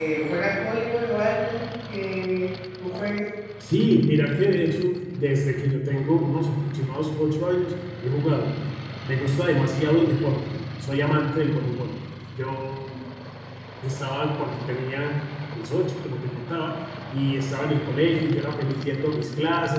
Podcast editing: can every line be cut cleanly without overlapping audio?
Yes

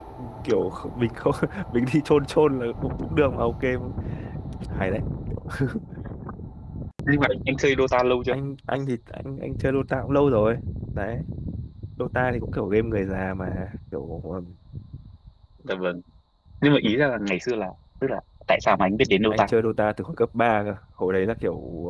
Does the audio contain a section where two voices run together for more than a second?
No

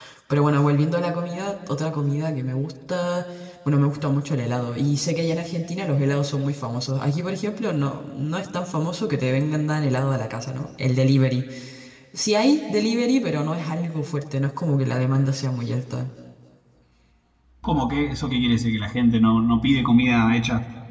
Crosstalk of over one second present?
No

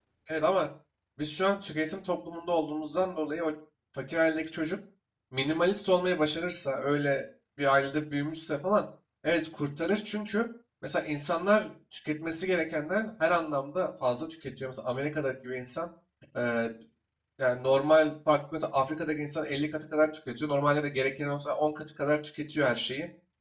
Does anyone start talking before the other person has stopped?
No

